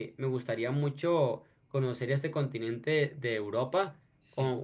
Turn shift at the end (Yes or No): No